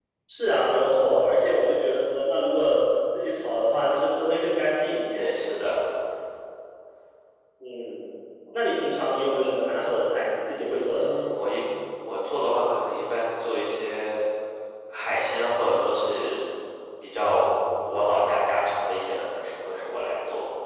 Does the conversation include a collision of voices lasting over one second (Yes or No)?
No